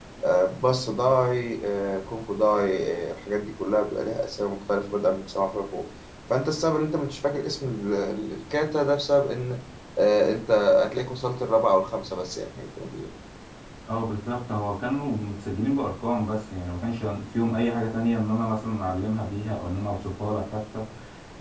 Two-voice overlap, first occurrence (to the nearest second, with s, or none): none